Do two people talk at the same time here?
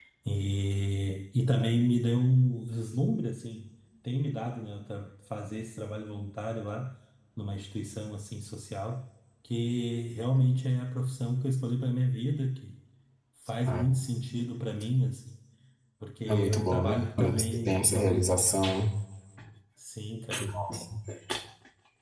Yes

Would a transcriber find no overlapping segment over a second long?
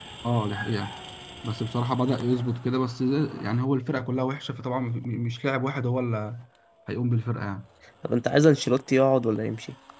Yes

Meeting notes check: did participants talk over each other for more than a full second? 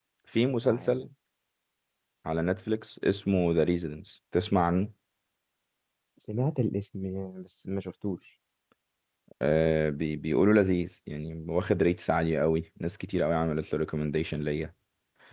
No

